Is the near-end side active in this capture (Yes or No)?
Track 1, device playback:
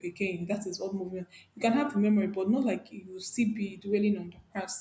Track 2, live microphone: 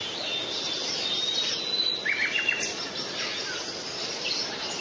No